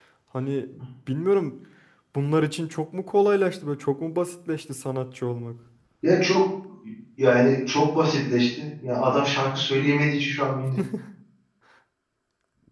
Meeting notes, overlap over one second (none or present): none